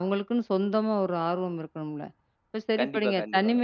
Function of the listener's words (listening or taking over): listening